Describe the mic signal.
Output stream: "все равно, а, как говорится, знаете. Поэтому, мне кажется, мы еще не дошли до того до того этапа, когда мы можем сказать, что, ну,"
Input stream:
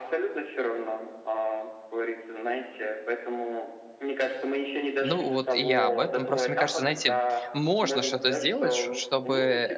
both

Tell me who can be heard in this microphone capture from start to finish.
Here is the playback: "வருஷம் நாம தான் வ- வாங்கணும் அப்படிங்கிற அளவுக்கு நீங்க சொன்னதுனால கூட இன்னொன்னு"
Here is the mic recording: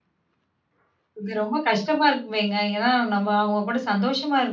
user only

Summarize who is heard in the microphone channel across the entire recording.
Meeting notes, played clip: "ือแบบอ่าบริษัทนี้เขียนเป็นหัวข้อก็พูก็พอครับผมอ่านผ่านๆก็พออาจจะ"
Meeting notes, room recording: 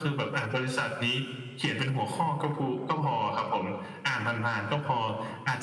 echo only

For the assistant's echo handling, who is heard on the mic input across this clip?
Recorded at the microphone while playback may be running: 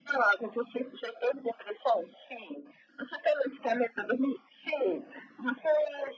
echo only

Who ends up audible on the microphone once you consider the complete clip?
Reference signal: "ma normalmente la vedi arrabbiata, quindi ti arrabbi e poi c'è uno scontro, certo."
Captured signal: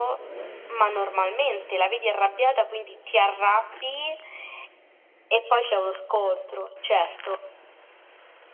echo only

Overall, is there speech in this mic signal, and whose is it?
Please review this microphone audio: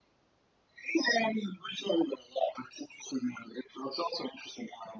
echo only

